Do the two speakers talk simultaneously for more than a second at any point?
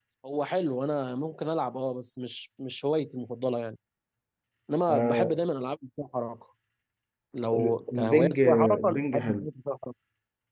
Yes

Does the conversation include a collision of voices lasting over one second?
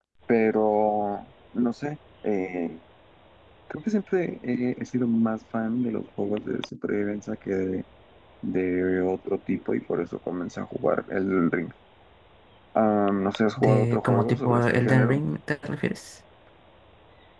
Yes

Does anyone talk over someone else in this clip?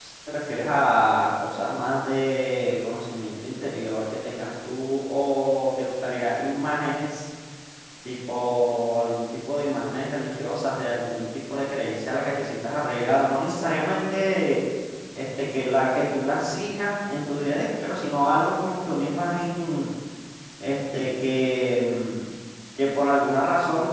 No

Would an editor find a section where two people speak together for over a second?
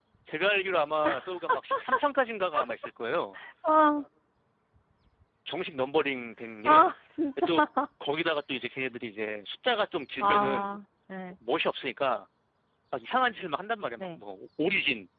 No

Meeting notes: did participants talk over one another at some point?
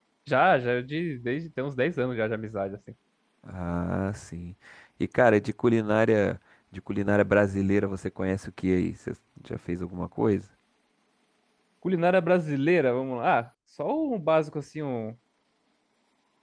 No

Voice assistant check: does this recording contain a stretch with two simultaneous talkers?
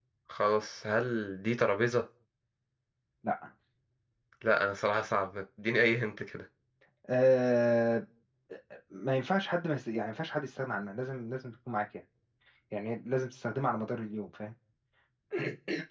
No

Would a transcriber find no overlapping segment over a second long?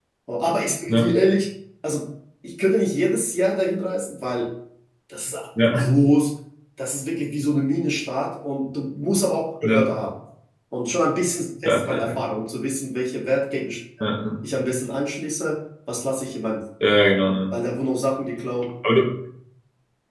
Yes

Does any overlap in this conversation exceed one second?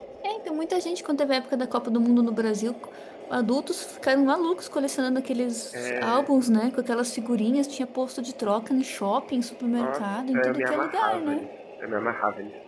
Yes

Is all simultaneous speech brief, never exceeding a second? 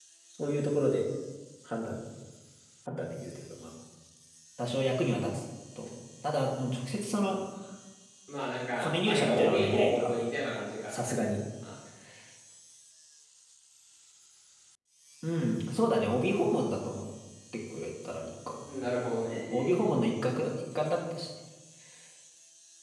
No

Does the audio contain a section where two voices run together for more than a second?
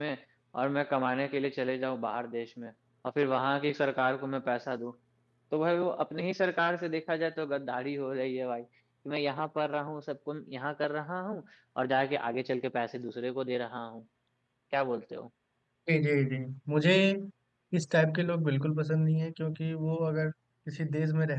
No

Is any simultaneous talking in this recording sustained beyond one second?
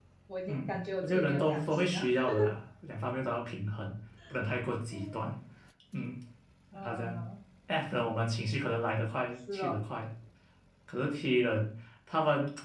Yes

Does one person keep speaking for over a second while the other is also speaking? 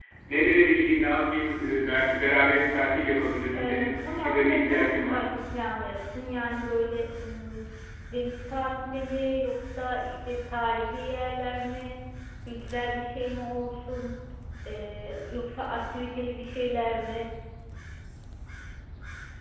Yes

